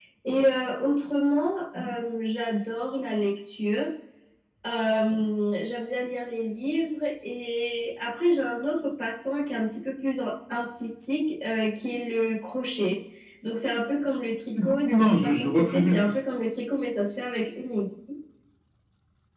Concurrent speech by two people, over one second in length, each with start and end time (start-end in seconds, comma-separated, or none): 14.7-16.1